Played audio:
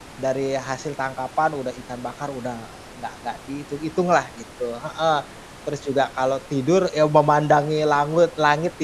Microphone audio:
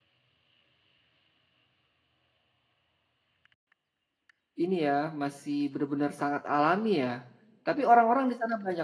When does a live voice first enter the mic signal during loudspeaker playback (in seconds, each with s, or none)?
4.6 s